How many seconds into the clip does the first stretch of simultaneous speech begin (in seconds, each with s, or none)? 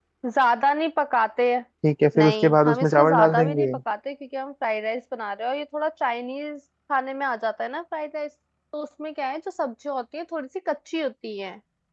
2.2 s